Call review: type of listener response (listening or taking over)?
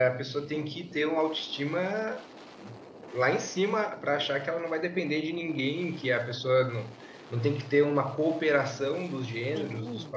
taking over